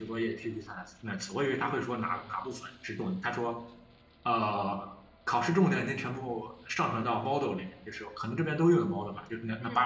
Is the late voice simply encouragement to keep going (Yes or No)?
Yes